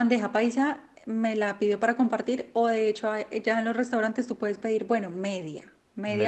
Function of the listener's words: taking over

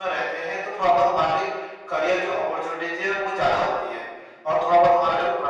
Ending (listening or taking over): listening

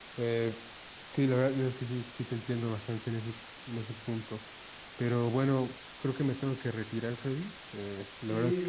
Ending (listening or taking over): taking over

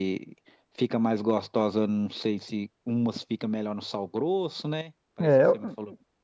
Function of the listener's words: taking over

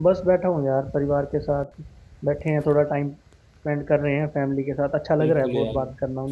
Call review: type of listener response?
taking over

